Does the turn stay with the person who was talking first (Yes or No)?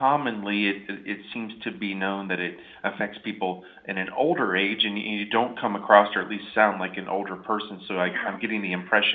Yes